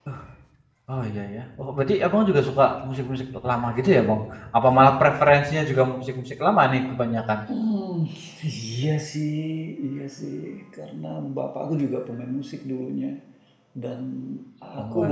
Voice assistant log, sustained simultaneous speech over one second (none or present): none